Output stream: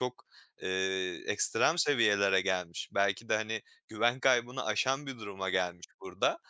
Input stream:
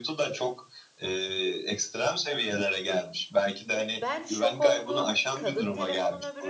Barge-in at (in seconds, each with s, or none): 3.9 s